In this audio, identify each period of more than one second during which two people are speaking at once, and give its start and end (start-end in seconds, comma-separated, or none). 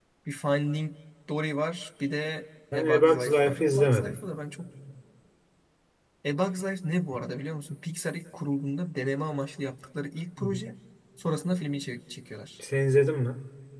2.7-4.2